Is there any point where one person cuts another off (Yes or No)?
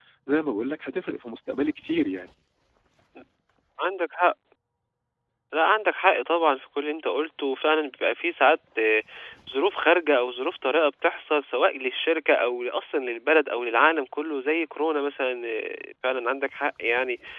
No